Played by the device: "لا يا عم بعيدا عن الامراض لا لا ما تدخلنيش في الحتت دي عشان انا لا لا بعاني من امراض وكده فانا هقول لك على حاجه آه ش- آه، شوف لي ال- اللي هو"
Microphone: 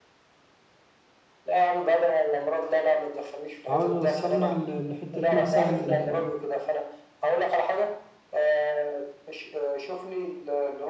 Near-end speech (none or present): present